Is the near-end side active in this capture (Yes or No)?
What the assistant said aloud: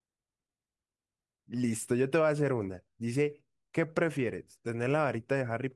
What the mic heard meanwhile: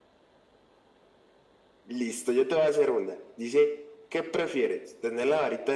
No